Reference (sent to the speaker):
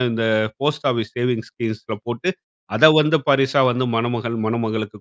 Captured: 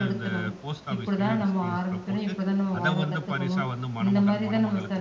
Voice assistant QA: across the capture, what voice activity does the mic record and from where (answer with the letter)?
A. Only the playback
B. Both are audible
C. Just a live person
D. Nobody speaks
B